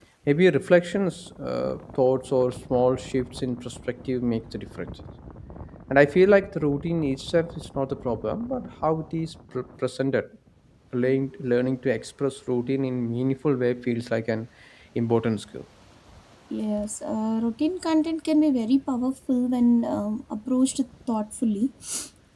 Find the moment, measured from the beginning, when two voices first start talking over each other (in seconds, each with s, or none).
none